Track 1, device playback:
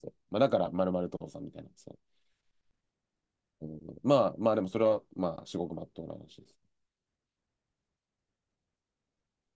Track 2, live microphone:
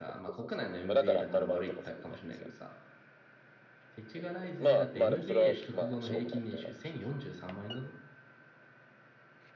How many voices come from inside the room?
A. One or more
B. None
A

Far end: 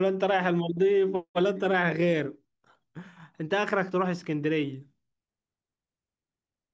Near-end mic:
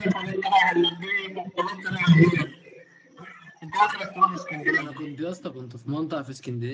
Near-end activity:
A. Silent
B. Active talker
B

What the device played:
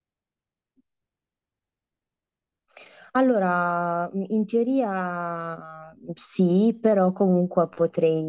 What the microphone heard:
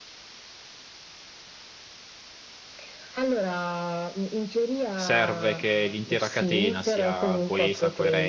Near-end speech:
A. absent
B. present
B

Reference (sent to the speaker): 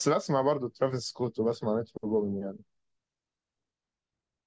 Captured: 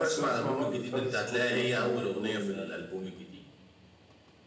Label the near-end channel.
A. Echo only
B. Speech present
B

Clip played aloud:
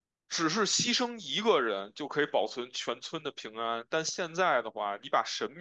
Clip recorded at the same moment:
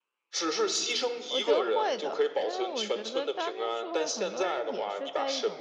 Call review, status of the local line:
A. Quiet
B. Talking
B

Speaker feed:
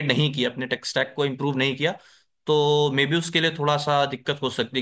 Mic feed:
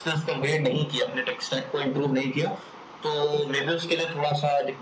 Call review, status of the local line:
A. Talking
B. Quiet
B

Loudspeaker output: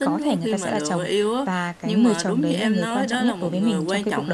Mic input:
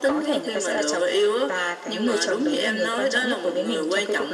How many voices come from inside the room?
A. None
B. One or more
A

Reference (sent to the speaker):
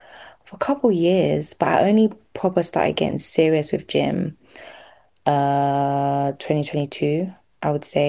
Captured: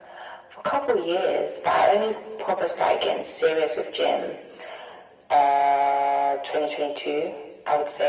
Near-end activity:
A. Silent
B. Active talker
A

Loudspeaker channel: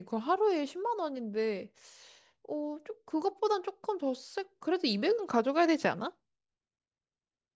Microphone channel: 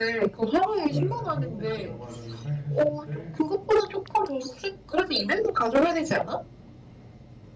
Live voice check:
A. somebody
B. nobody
A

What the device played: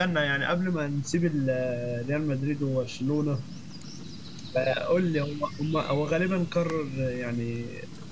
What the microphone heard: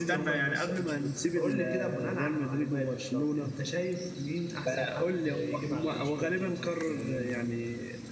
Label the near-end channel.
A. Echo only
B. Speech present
B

